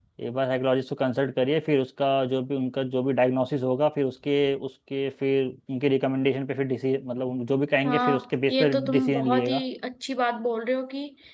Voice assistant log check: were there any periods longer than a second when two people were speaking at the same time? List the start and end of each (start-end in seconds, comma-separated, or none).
7.8-9.6